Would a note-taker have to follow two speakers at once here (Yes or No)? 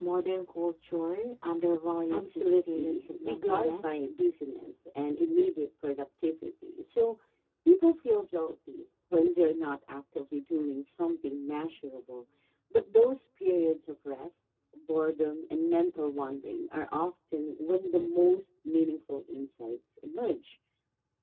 Yes